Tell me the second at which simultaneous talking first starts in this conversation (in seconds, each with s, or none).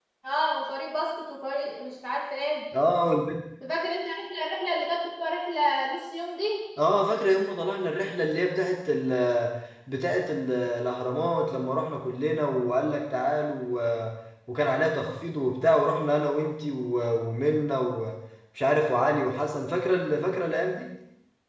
none